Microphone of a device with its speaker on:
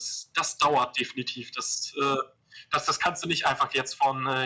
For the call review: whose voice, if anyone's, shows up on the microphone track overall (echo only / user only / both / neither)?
echo only